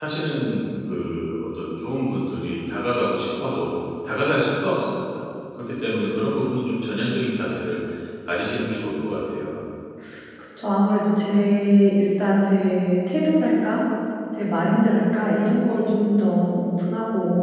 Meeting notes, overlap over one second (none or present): none